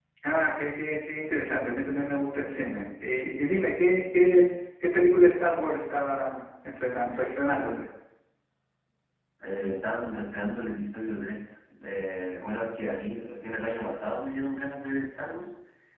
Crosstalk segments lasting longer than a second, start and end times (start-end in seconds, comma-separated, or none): none